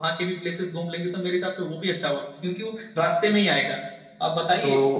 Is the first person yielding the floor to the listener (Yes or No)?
No